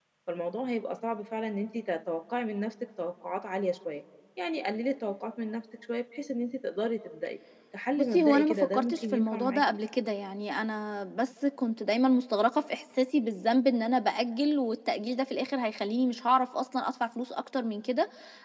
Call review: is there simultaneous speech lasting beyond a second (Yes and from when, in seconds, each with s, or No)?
Yes, from 8.0 s